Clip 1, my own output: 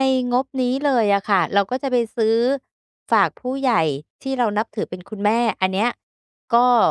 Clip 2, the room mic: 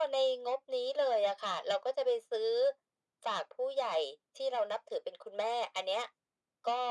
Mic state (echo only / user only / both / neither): echo only